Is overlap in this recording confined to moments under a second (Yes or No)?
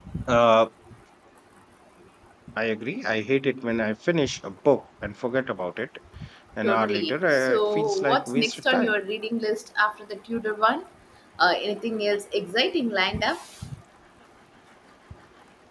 No